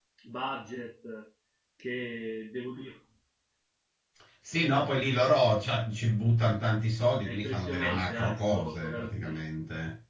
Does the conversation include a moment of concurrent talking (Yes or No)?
Yes